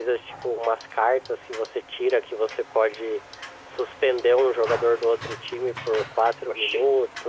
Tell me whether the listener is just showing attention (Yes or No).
Yes